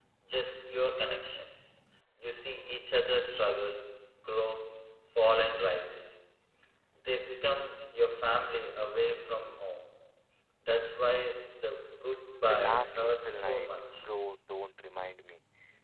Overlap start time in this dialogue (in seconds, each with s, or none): 12.5 s